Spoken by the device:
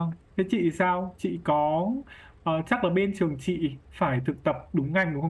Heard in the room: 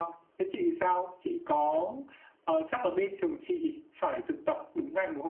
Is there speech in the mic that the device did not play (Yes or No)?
No